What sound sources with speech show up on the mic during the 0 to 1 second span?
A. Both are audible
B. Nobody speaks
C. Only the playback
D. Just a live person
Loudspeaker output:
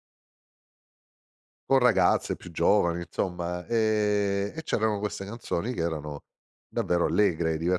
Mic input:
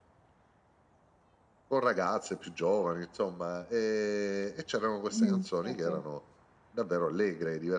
B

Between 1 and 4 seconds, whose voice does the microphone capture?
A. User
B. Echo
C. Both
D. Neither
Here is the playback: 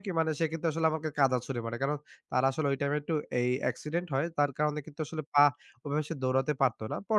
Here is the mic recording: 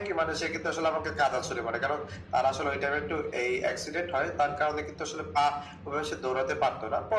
B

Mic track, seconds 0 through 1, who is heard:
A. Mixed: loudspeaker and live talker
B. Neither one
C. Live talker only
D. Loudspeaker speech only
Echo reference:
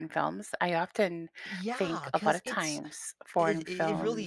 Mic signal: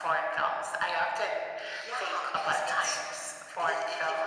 D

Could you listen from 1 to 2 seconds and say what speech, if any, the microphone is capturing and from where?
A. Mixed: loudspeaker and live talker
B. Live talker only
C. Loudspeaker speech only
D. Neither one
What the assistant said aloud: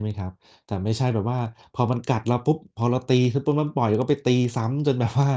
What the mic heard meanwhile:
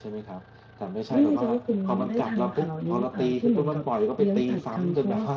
A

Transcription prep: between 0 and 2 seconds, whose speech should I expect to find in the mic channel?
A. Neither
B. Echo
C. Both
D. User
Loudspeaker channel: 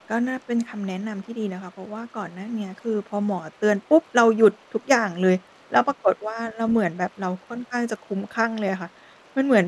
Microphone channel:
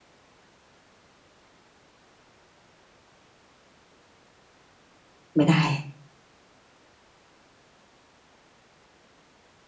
A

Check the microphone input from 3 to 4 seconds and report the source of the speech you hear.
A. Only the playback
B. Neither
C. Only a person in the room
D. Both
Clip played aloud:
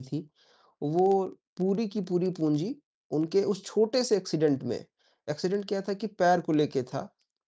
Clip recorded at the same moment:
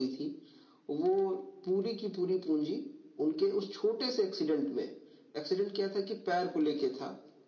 A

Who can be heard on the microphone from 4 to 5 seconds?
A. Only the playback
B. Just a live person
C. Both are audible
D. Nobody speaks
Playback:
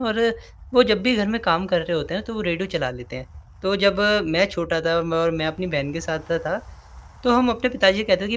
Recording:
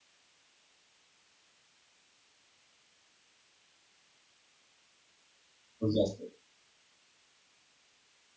D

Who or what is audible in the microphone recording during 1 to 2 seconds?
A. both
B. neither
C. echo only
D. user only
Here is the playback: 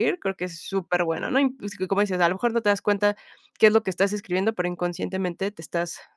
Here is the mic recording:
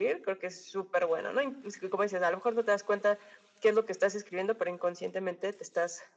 C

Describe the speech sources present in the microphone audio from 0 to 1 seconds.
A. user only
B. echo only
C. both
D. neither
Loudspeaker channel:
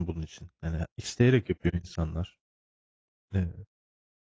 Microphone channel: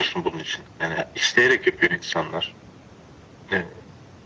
B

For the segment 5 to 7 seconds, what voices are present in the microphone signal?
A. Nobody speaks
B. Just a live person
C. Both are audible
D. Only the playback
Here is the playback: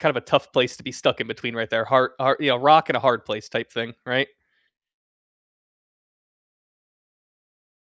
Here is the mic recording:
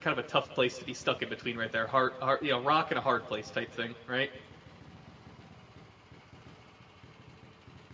A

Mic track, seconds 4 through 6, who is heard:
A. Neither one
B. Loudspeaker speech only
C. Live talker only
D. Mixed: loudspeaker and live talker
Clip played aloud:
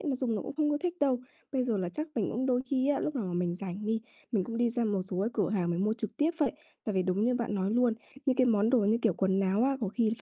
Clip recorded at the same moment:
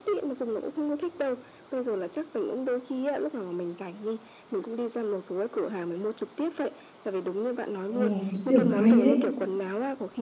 B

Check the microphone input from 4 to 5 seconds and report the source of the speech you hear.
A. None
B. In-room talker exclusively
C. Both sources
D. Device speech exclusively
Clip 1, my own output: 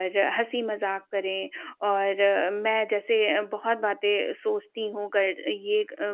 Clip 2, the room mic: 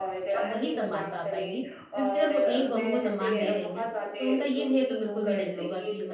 C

